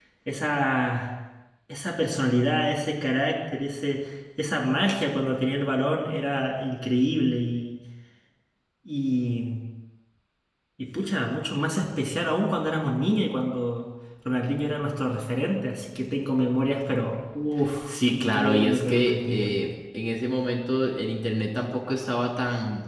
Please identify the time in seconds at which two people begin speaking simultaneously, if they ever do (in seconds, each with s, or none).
17.9 s